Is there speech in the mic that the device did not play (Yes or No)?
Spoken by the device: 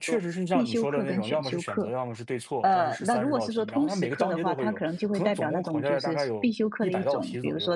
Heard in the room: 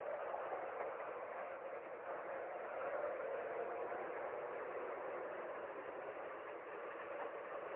No